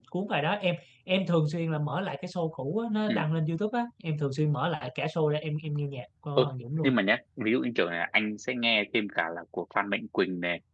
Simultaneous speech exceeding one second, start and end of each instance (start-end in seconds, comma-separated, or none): none